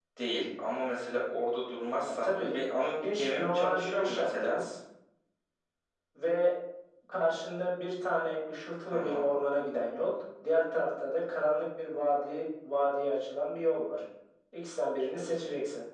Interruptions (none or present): present